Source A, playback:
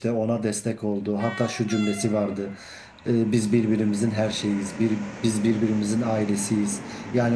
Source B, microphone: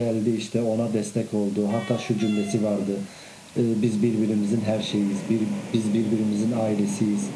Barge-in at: none

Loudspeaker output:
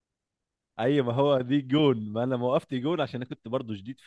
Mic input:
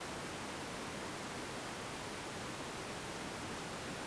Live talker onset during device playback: none

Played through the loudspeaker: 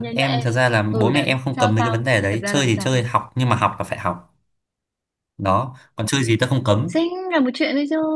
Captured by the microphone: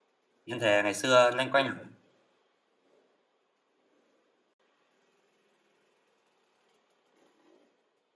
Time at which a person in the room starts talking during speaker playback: 0.4 s

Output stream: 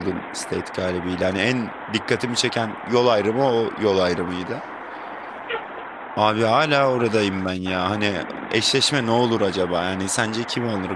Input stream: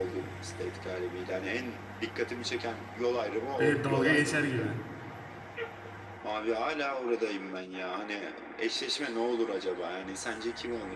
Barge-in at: 3.6 s

